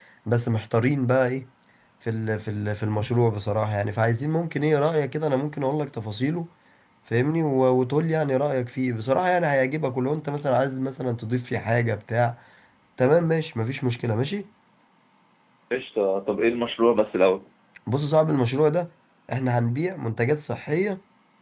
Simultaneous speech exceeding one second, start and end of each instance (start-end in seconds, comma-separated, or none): none